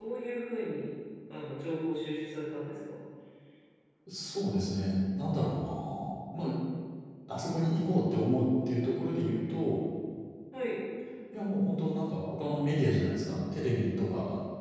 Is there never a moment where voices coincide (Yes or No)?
Yes